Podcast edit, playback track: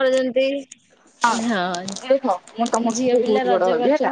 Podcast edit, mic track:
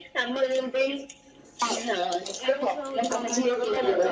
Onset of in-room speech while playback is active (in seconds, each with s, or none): 2.5 s